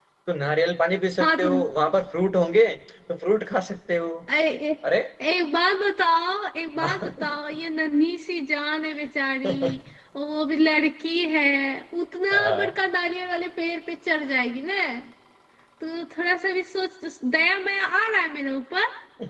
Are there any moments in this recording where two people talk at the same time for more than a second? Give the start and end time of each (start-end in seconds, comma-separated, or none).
none